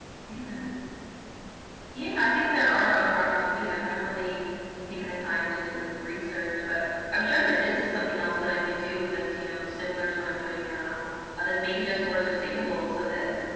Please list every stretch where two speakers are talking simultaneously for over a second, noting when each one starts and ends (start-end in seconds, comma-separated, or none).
none